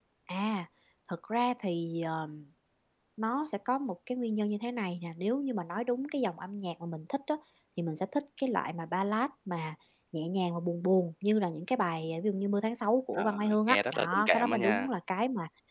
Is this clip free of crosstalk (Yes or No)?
No